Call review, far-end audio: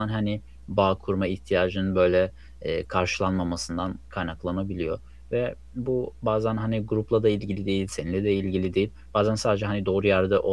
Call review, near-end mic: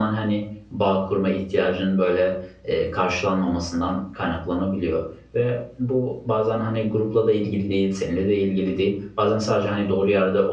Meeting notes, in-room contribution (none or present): none